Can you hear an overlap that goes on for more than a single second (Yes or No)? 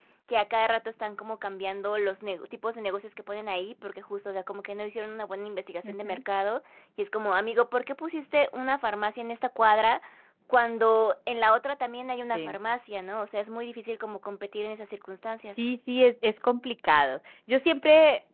No